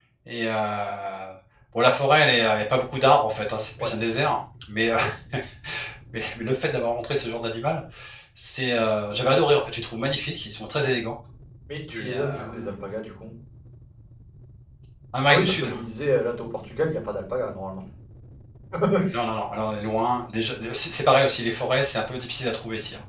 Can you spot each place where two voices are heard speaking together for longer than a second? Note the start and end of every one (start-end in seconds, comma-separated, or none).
none